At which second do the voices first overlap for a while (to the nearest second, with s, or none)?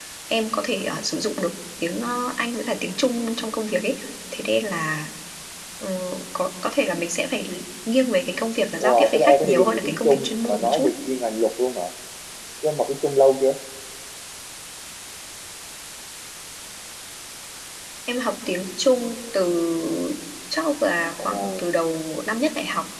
9 s